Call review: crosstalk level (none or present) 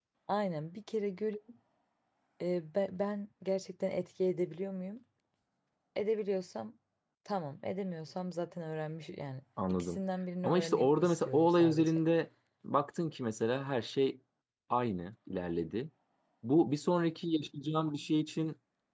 present